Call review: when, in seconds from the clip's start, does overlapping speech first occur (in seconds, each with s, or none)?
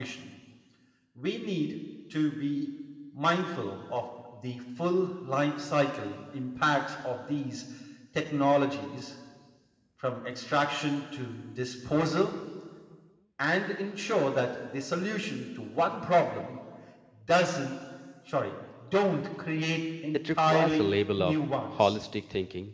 20.1 s